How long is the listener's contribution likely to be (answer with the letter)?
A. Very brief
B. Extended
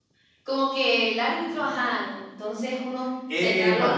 B